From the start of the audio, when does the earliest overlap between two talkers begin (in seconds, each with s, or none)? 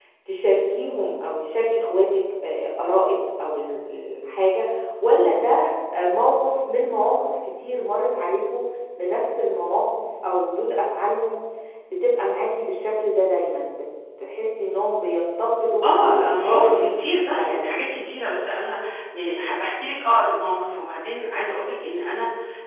16.1 s